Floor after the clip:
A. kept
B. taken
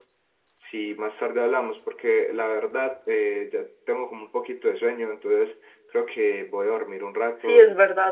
B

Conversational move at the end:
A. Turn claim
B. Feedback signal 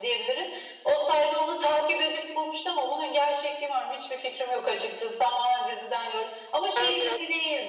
B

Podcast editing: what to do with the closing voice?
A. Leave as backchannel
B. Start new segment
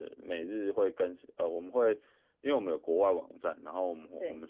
A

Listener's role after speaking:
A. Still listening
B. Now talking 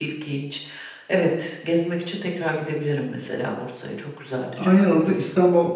B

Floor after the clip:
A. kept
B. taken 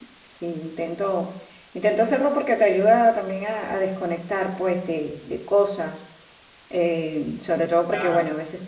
A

